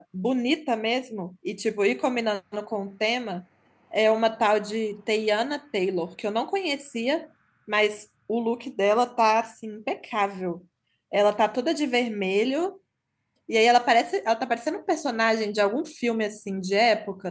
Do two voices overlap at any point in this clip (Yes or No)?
No